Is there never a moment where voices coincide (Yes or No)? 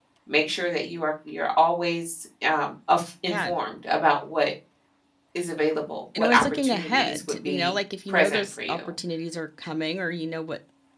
No